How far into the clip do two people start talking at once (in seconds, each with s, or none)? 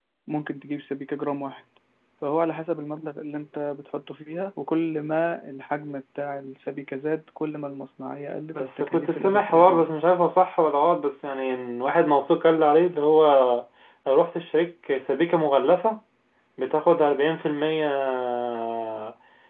8.5 s